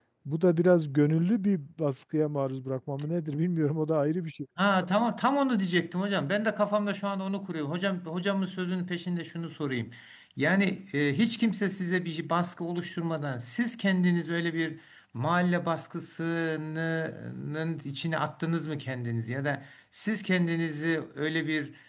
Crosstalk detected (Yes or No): No